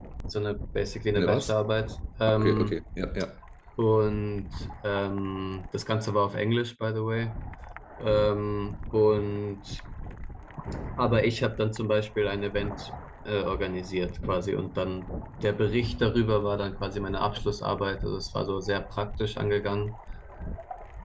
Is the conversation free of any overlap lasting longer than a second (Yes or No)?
Yes